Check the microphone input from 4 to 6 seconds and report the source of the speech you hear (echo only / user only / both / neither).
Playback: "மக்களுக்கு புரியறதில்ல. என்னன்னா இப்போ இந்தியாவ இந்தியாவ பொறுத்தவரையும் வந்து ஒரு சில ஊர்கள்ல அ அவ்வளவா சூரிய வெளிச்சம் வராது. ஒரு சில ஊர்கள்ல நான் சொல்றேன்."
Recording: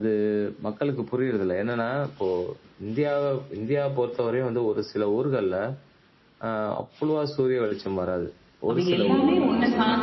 echo only